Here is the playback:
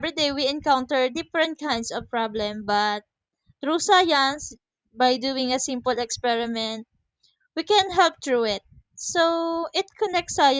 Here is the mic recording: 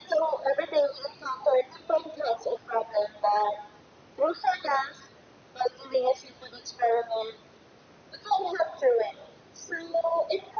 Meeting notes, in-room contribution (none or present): none